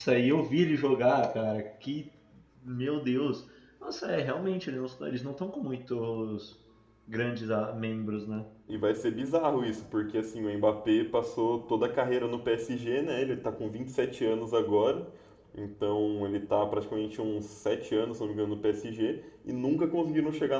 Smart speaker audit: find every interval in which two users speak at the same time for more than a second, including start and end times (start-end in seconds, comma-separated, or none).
none